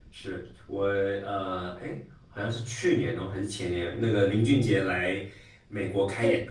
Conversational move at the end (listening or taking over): listening